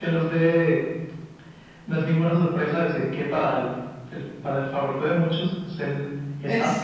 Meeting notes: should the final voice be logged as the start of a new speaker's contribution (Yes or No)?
Yes